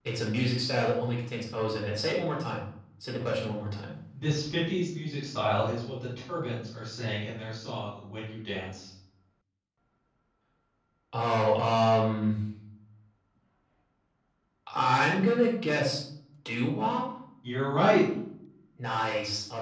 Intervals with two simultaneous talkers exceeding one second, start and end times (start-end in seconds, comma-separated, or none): none